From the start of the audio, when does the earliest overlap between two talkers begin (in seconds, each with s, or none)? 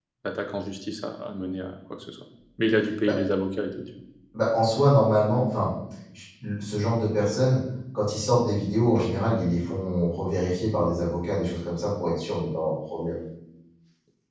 none